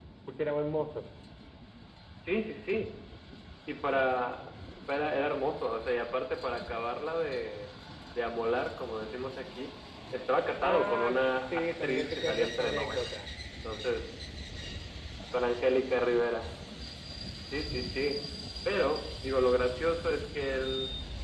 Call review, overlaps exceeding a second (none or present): present